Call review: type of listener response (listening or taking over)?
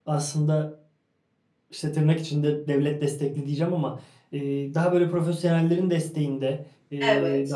listening